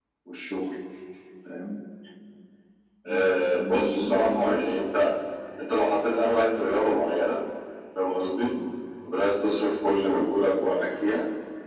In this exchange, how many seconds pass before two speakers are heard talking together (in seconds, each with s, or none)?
3.0 s